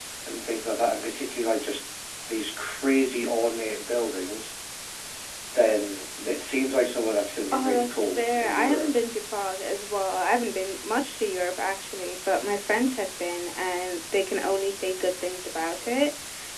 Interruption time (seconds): 7.5 s

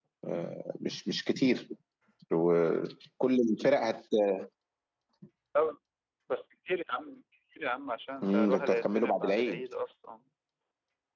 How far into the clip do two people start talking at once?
8.2 s

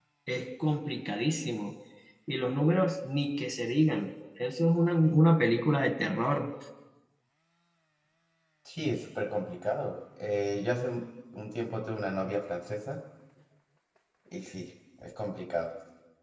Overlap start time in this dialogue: none

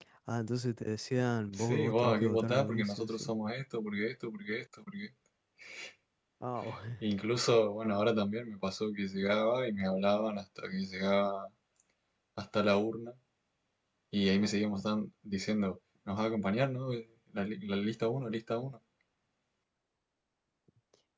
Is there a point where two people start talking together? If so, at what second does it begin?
1.5 s

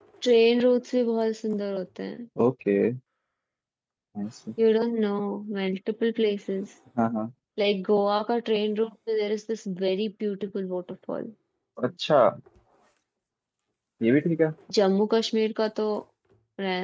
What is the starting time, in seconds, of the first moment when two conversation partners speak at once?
none

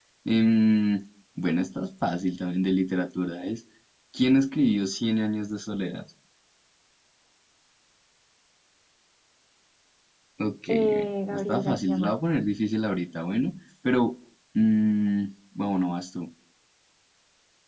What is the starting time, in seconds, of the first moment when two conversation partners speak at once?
10.7 s

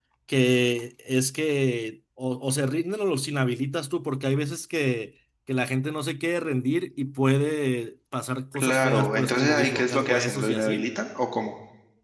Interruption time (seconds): 8.5 s

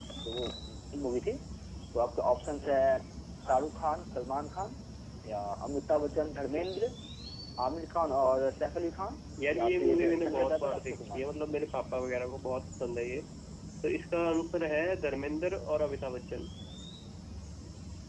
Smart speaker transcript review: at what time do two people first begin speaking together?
9.4 s

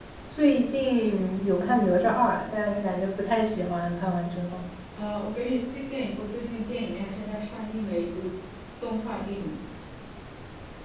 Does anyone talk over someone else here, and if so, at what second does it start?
none

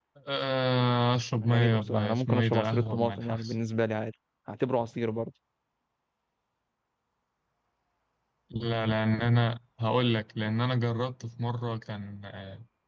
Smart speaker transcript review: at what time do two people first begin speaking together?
1.4 s

